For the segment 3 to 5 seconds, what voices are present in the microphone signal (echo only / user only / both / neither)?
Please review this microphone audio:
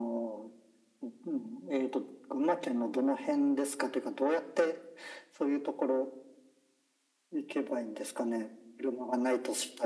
echo only